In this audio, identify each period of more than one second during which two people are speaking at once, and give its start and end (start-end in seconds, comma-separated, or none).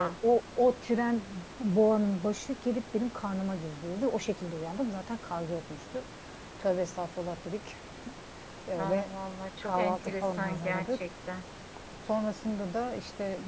9.6-11.0